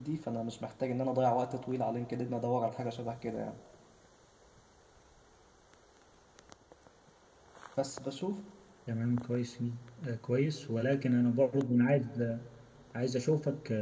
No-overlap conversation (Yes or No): Yes